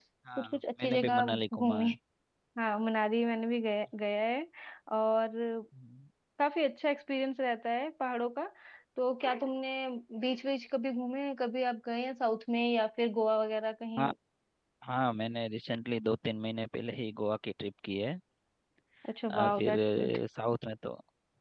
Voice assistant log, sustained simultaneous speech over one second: present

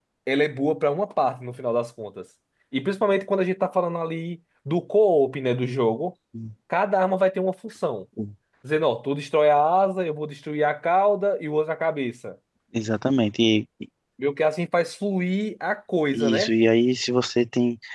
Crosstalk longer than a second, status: none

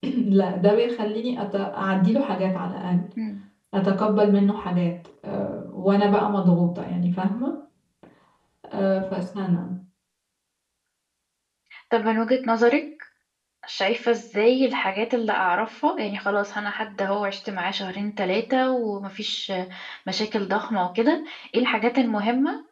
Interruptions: none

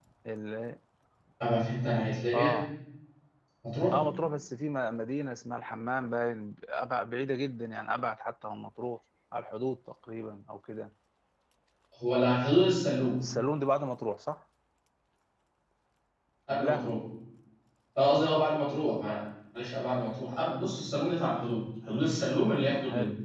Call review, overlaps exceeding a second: none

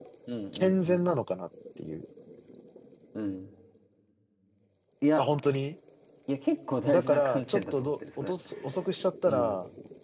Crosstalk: present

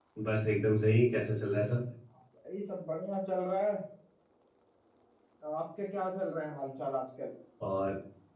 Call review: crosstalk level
none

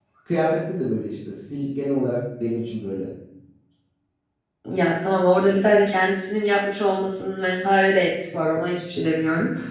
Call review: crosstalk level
none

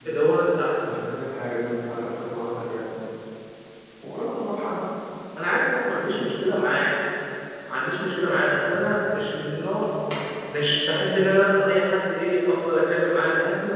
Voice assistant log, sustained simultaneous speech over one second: none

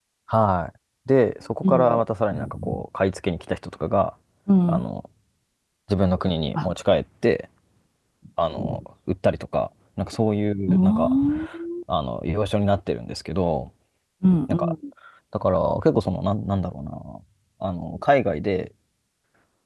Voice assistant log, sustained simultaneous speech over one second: none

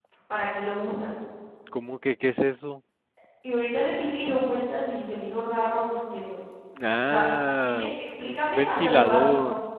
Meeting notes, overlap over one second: present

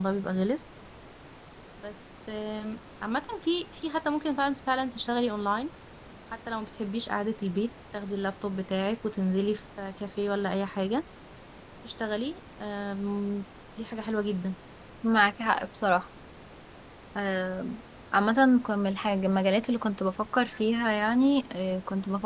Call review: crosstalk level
none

